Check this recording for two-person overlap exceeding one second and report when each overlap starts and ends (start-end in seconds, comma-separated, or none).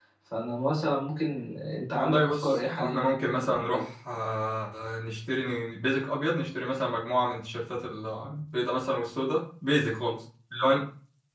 1.9-3.8